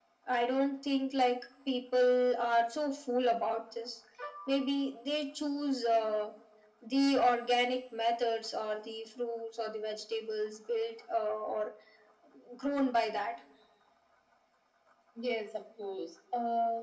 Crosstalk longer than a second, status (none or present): none